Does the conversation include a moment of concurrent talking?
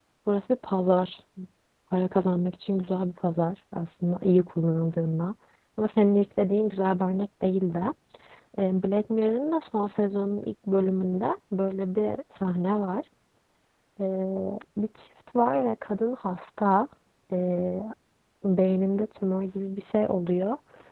No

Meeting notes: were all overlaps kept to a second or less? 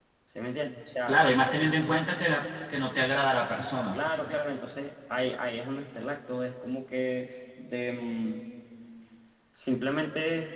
Yes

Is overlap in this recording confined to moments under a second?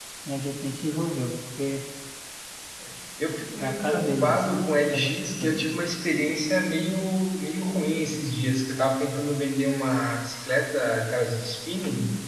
No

